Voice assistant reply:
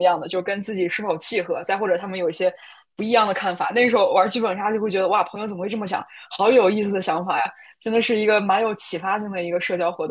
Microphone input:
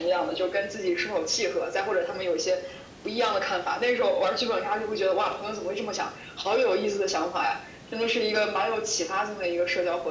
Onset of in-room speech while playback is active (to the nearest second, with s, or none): none